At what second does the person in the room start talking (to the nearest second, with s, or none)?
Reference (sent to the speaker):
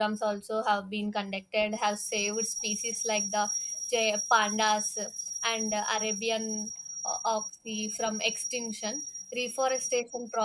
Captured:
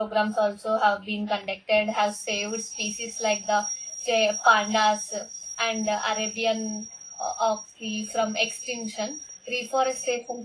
none